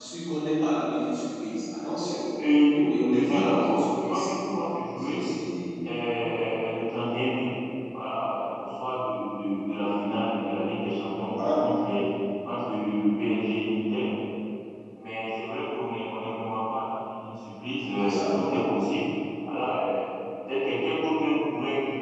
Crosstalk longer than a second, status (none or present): present